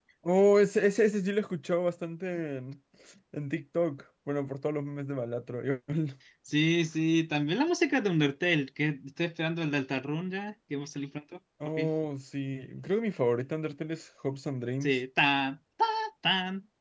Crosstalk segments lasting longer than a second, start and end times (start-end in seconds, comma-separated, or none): none